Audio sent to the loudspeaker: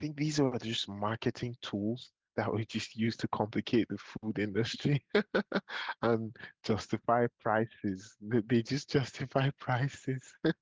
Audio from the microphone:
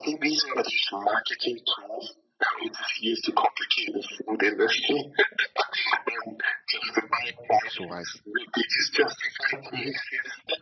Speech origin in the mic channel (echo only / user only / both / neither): both